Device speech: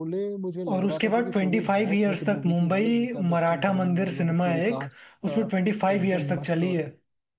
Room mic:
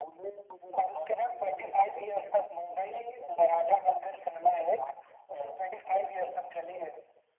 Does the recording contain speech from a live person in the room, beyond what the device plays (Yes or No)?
No